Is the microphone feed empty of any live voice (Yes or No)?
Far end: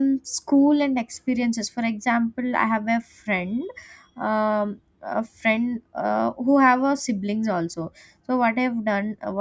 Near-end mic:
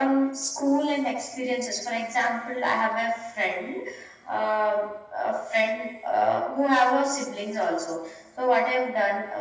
Yes